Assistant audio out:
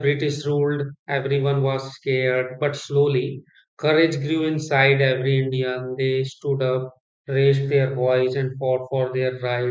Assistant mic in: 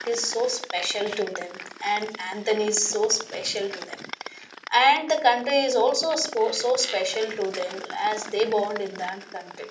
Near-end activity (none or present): present